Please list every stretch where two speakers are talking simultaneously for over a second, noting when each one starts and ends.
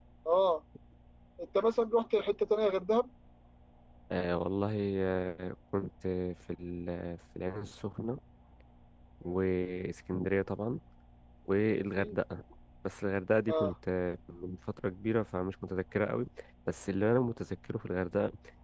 none

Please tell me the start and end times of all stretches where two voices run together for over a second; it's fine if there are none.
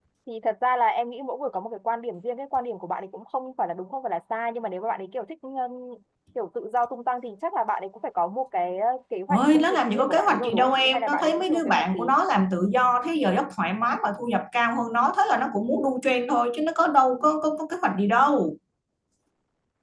9.3-12.1

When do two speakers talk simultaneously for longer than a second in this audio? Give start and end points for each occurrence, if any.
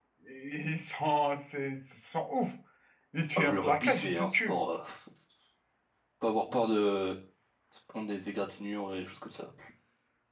3.4-4.6

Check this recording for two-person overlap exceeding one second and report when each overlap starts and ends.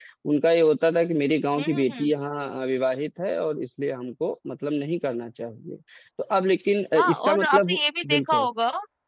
7.0-8.5

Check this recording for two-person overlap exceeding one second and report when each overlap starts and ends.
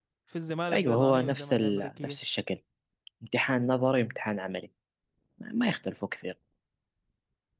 0.7-2.2

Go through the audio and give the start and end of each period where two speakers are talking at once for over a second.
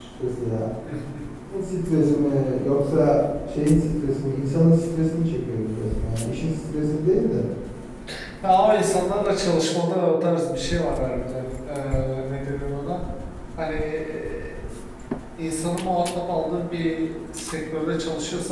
none

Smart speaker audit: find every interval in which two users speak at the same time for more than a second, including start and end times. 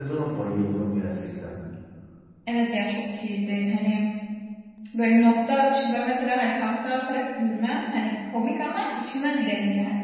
none

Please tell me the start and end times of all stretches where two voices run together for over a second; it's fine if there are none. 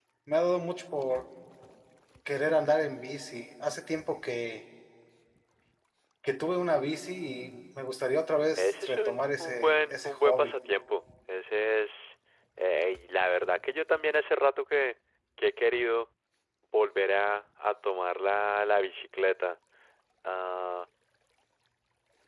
8.6-10.5

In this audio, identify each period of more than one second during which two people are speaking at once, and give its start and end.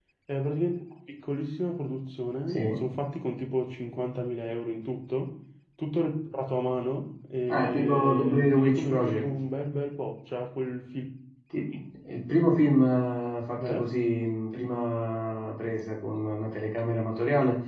7.5-9.3

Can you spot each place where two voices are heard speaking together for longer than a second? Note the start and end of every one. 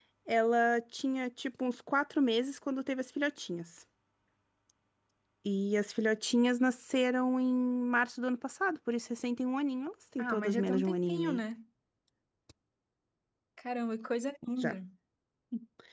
10.2-11.4

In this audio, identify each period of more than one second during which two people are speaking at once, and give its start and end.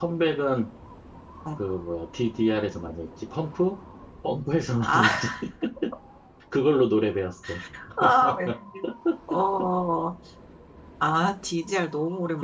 none

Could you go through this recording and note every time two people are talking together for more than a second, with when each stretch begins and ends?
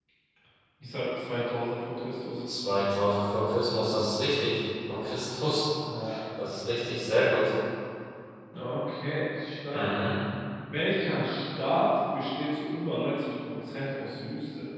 none

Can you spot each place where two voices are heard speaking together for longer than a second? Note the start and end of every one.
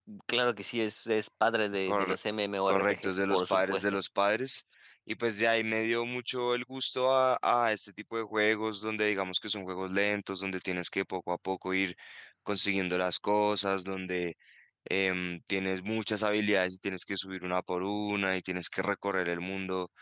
2.7-4.0

